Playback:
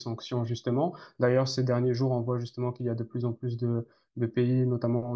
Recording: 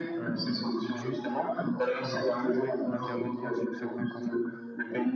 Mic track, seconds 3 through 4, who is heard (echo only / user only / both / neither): both